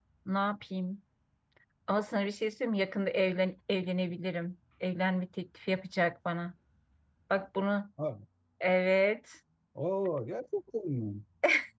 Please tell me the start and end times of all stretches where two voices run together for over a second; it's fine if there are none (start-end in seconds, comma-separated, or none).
none